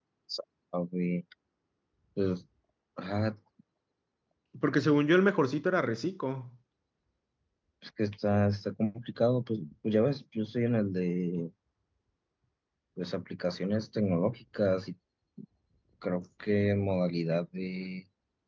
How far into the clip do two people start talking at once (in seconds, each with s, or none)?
none